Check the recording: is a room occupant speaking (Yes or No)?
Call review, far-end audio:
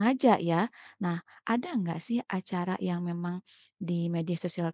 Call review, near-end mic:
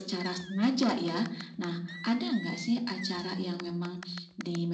No